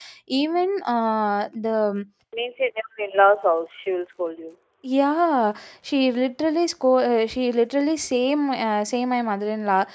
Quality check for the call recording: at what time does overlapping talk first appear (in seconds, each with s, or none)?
none